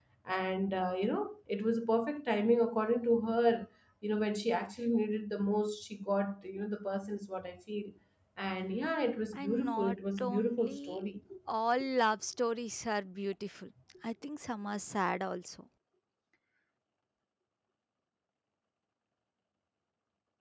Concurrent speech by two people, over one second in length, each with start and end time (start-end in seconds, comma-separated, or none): 9.4-11.1